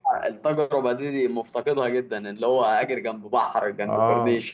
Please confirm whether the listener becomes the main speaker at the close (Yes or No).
Yes